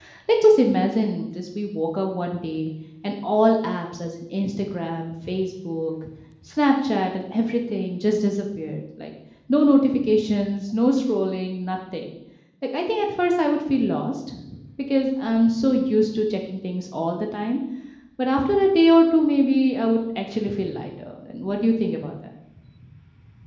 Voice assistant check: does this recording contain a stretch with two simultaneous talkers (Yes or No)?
No